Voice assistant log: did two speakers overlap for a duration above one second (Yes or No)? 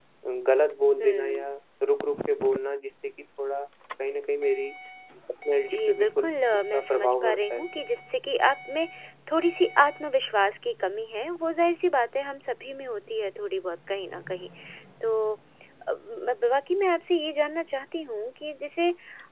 Yes